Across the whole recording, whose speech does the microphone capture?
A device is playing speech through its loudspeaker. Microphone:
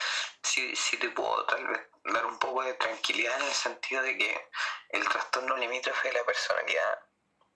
echo only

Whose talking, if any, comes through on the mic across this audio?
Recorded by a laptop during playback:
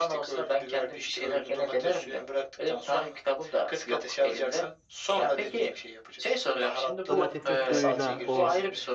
both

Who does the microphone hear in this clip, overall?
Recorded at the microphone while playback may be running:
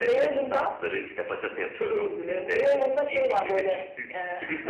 echo only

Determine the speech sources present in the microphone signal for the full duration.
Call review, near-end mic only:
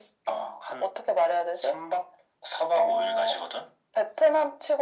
echo only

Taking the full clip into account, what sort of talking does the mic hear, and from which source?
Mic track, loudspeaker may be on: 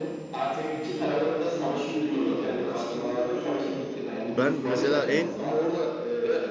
both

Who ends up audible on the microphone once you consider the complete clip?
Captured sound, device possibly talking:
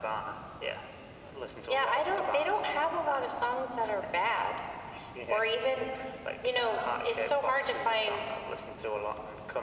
echo only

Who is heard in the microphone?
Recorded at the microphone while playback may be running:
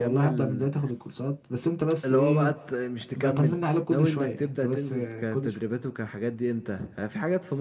both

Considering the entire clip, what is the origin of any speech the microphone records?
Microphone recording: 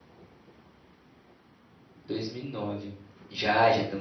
user only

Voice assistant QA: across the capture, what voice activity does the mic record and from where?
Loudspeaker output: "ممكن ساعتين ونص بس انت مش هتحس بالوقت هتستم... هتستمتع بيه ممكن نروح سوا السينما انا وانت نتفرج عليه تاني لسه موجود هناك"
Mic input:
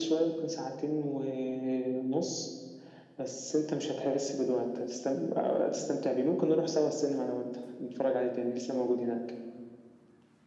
echo only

